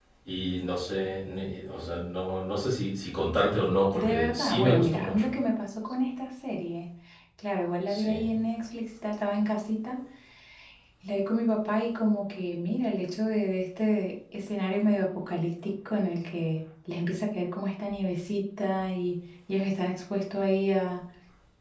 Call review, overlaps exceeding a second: present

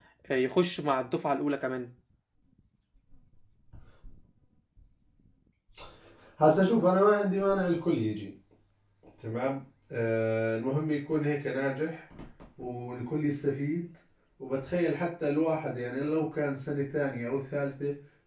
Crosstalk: none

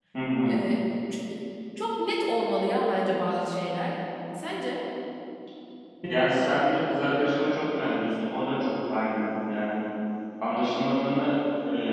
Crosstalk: none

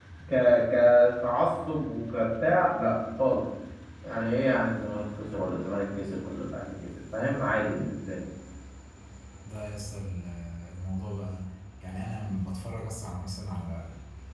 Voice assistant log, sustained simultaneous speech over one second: none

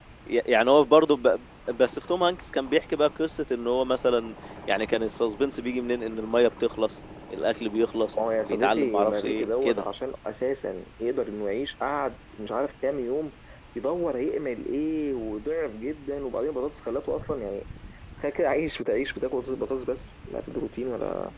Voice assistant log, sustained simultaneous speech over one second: present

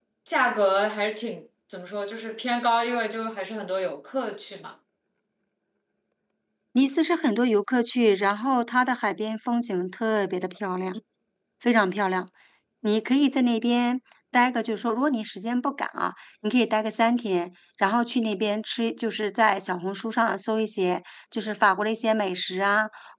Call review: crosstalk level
none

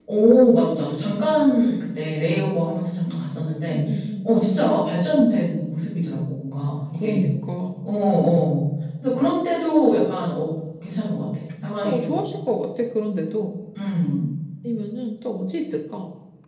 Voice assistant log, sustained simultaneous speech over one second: none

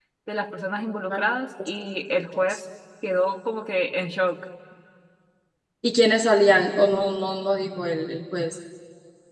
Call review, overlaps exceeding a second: none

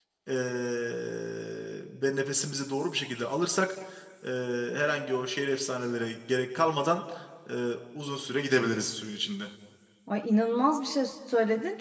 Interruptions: none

